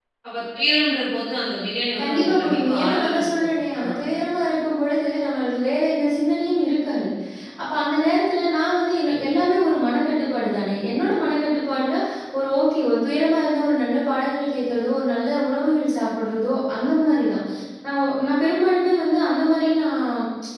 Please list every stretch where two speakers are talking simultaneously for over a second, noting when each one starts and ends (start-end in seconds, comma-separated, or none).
2.0-3.8